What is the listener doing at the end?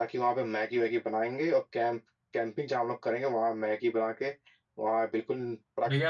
taking over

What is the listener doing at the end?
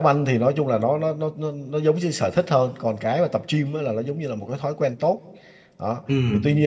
listening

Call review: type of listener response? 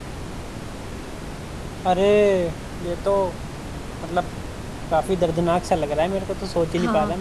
taking over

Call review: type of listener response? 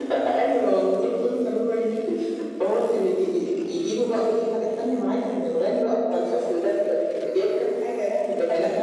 listening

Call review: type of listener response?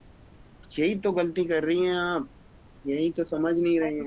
listening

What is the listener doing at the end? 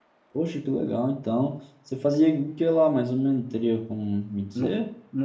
taking over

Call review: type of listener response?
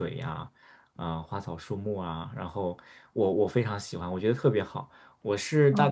listening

